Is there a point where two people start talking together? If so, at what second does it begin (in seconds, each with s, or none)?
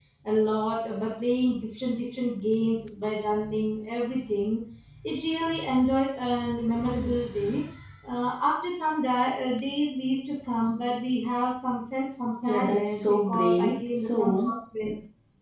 12.4 s